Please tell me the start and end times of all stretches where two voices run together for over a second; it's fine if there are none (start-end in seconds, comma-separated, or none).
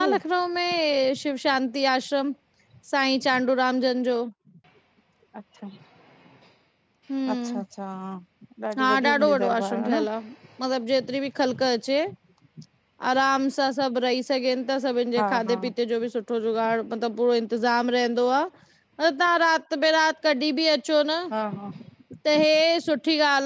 8.8-10.1